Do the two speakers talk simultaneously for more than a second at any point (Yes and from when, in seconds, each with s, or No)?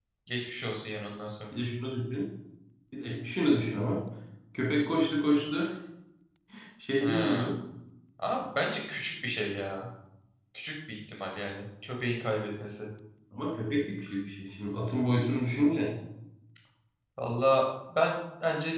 No